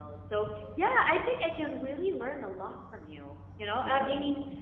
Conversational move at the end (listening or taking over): listening